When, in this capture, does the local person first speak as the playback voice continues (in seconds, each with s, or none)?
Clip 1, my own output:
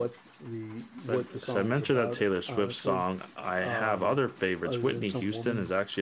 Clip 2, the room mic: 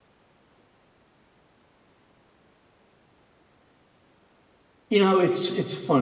4.9 s